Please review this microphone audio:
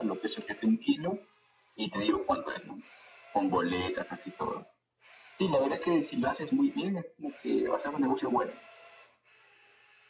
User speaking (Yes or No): No